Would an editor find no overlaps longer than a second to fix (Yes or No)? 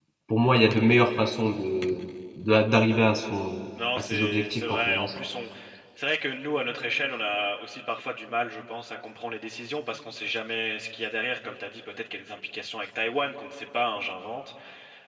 No